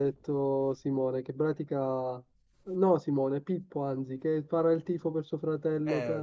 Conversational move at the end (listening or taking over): taking over